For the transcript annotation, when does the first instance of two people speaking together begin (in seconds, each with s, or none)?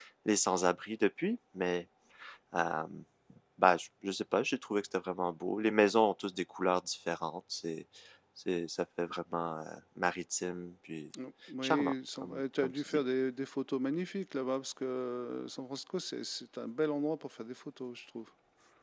11.6 s